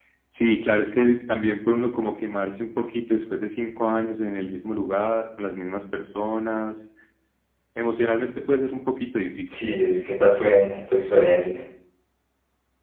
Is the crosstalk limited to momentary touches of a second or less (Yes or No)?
Yes